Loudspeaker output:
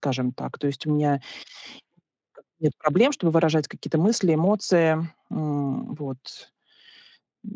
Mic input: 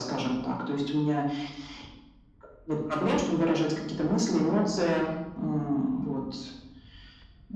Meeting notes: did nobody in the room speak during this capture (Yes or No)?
Yes